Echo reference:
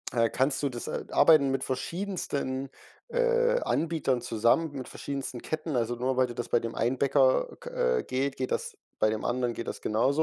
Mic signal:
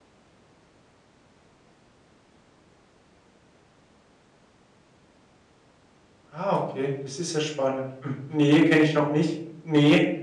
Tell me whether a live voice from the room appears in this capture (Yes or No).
Yes